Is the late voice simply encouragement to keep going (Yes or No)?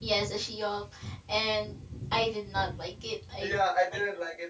No